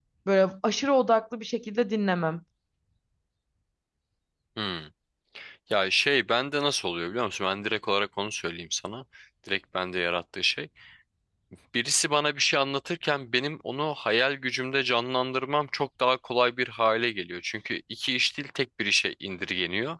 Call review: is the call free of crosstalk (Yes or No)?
Yes